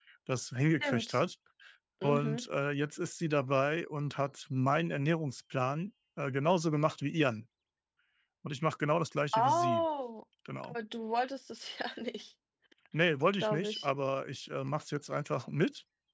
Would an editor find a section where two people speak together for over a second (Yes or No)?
No